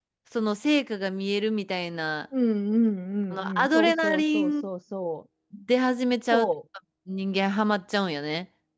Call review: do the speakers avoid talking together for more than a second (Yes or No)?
No